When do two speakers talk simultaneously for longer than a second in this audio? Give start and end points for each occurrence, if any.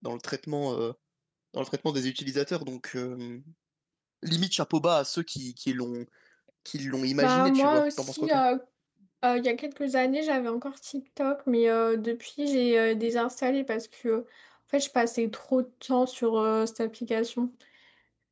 7.2-8.4

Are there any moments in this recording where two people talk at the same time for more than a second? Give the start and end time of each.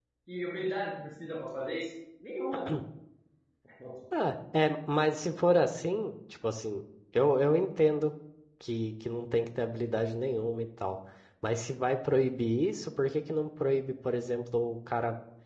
none

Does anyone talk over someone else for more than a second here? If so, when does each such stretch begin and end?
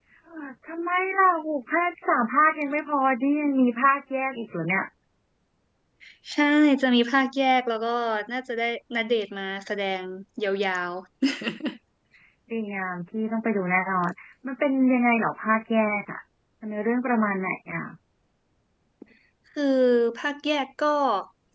none

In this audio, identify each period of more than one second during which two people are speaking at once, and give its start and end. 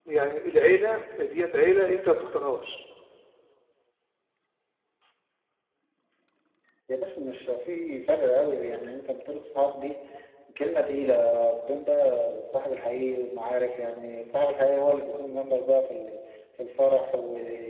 none

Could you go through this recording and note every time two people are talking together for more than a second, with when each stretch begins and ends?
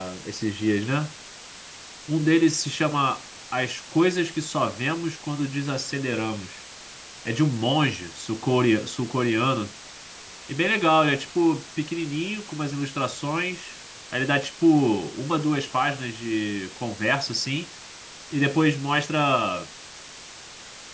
none

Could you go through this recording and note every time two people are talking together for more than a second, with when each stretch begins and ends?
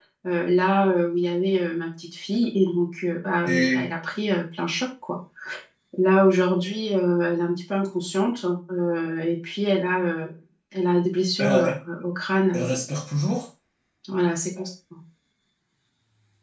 none

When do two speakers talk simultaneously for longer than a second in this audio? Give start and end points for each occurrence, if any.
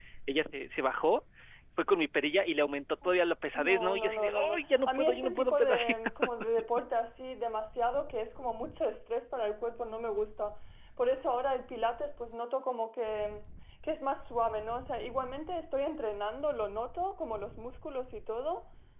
3.6-5.8

